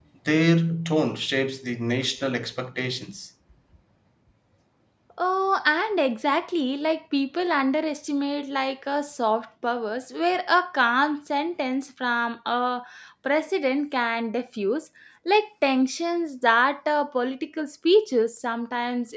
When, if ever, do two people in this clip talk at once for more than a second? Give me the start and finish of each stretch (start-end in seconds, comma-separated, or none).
none